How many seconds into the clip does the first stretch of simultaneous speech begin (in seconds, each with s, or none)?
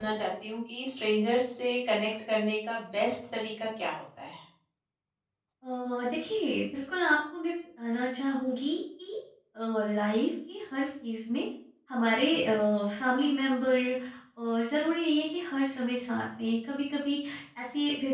none